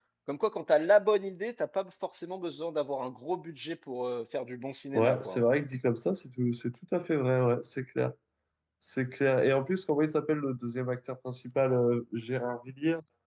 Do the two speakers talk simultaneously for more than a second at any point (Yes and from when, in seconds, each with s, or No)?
No